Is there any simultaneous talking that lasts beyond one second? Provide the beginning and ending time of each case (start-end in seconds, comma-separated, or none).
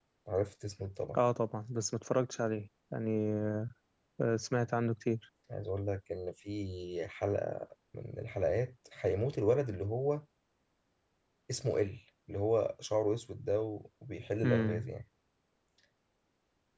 none